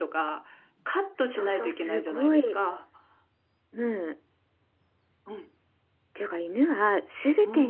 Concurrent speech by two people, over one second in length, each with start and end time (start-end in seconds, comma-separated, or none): 1.3-2.6